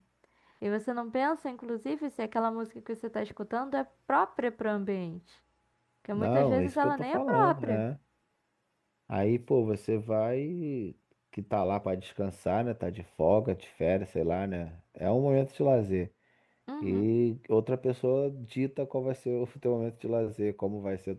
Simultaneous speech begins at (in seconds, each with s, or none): 6.1 s